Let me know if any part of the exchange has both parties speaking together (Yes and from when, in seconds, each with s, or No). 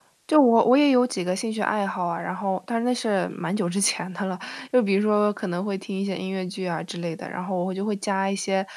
No